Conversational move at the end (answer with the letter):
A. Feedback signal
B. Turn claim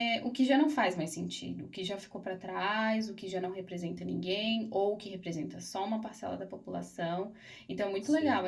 A